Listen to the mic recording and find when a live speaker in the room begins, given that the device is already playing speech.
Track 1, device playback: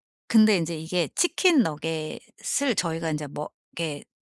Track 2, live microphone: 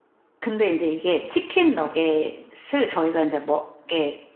none

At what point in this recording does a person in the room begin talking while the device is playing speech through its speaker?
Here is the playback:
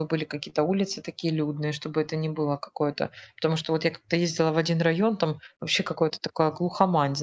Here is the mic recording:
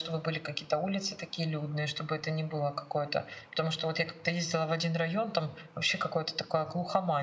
none

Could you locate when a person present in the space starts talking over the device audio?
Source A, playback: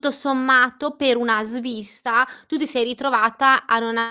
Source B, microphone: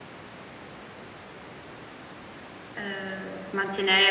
2.8 s

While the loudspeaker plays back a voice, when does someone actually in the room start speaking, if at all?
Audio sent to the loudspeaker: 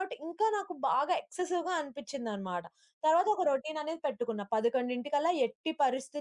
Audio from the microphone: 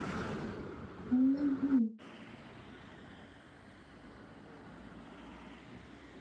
1.1 s

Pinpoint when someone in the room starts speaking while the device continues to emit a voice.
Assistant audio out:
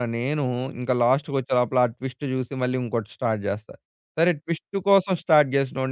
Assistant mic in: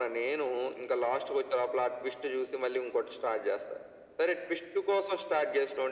none

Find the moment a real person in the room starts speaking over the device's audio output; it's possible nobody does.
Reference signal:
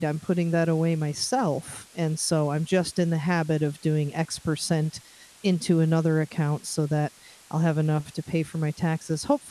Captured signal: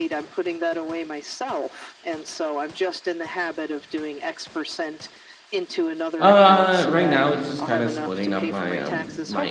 6.2 s

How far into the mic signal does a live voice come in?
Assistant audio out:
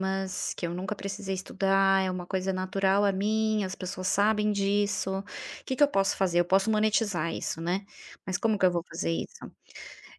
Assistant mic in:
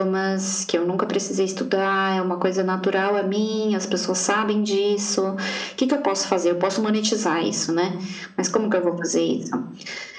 none

